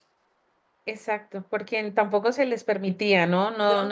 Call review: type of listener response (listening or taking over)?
listening